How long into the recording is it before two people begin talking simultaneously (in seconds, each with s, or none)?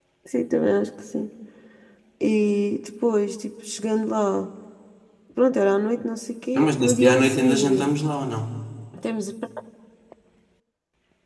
6.5 s